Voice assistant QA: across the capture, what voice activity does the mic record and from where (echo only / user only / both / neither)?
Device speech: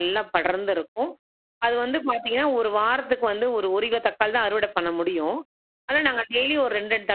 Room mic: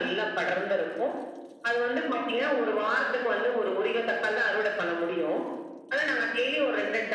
echo only